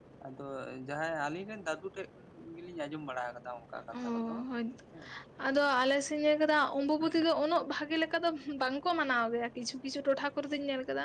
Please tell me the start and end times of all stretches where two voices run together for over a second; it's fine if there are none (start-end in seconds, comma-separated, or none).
none